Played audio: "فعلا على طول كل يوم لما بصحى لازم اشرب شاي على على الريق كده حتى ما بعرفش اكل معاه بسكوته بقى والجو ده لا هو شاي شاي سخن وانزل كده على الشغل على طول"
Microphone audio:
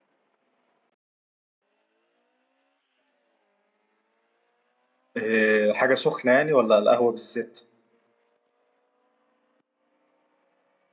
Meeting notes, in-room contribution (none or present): present